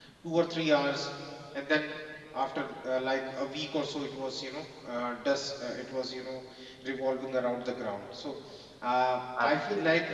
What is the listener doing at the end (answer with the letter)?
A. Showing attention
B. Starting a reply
A